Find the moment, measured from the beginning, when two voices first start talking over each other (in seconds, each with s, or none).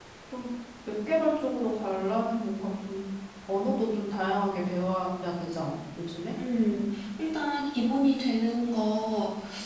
none